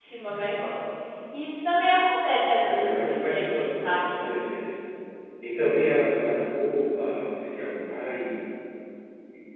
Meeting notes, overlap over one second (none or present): present